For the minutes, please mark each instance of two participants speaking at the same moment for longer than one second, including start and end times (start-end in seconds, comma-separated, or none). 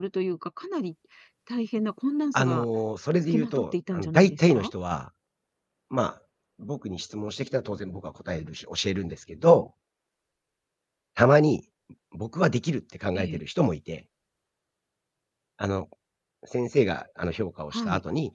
3.3-4.7